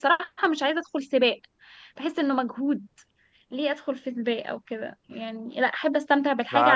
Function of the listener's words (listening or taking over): taking over